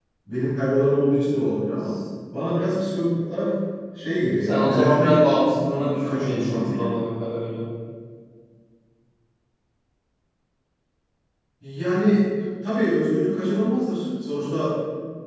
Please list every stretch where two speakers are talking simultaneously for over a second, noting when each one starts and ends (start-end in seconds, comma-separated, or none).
4.4-6.9